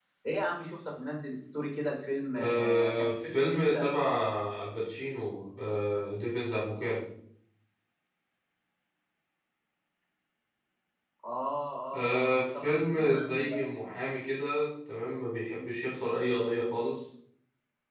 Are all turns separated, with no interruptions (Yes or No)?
No